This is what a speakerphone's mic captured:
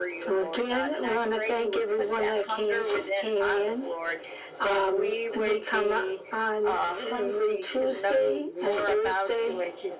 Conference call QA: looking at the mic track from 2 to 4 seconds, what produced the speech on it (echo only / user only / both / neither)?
echo only